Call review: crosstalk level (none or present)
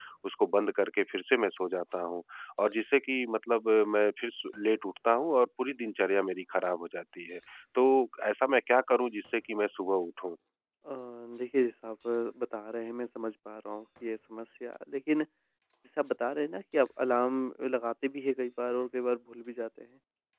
none